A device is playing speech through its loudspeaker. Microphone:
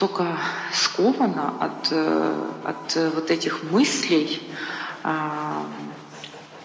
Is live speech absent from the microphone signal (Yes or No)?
Yes